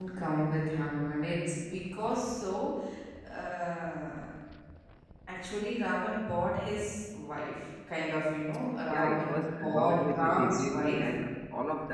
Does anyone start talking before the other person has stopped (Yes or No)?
Yes